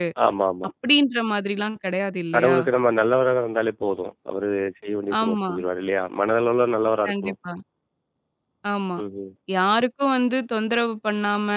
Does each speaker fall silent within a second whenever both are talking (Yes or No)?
Yes